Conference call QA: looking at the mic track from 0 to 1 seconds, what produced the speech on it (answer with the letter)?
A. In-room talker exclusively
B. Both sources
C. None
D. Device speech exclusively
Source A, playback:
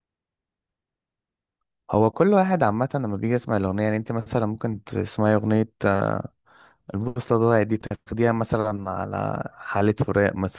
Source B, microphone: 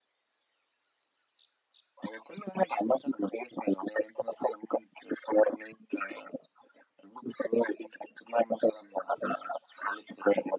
C